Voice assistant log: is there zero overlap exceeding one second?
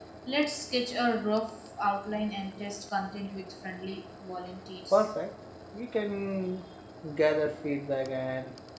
Yes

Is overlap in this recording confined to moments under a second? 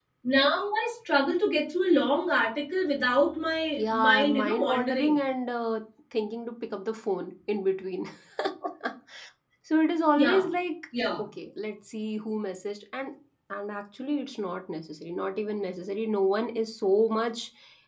No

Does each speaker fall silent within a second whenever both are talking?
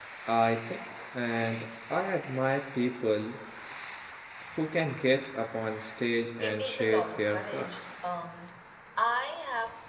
No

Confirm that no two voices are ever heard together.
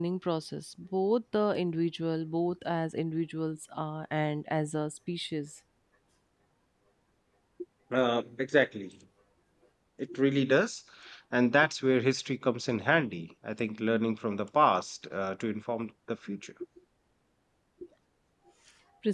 Yes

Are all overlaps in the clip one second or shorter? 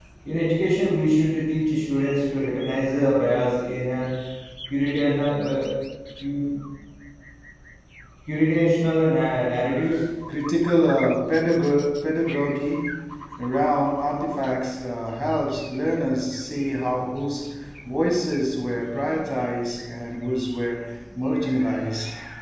Yes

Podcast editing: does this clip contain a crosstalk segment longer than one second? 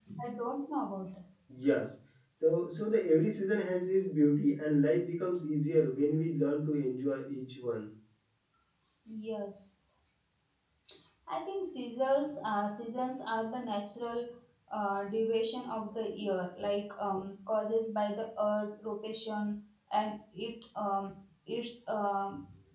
No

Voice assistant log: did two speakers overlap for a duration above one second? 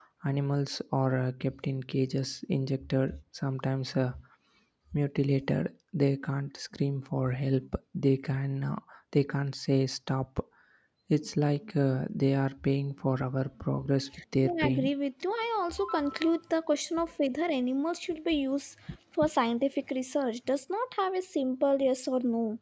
No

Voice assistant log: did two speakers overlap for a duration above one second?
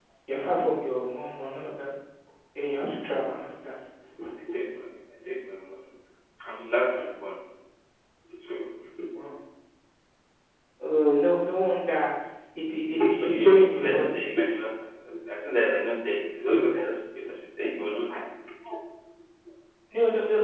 Yes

